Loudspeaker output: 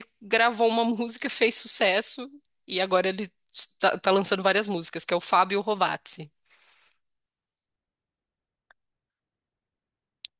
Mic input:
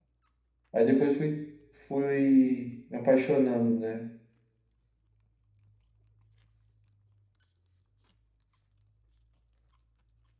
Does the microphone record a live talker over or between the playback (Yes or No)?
Yes